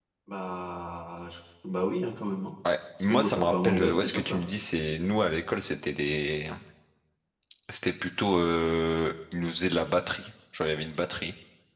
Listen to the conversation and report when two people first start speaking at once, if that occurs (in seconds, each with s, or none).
3.0 s